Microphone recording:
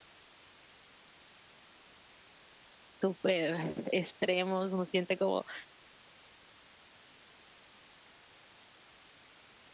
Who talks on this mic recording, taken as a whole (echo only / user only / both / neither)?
user only